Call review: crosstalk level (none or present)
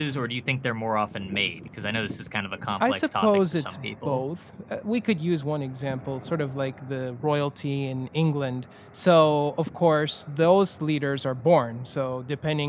present